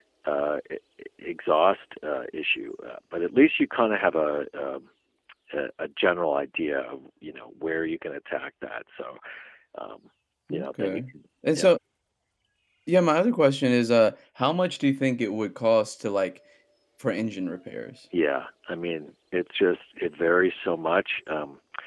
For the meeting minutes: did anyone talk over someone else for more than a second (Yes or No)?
No